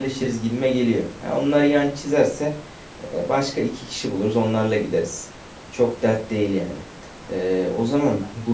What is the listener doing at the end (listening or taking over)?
listening